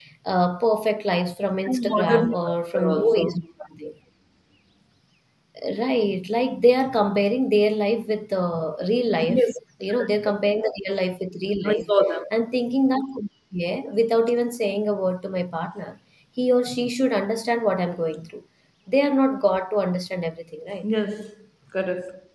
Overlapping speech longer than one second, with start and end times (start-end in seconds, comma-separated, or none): 1.6-3.2